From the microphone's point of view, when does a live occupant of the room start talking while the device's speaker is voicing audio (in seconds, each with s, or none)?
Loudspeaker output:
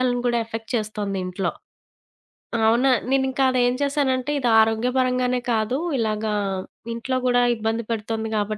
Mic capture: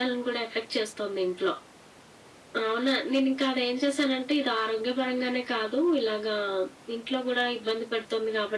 none